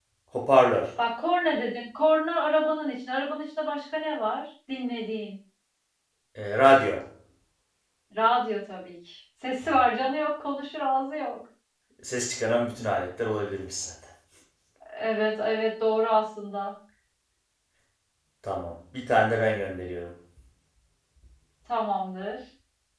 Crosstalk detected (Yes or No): No